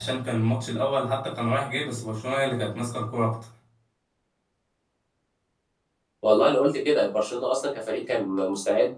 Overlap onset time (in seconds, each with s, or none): none